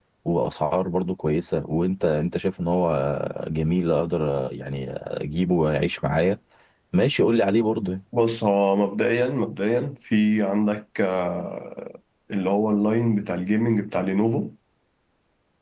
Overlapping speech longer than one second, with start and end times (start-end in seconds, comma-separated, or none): none